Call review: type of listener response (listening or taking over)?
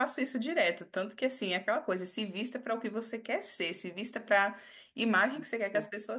listening